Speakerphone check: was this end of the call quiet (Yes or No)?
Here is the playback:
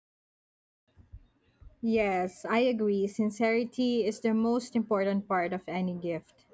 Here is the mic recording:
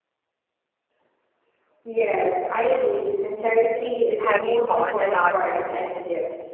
No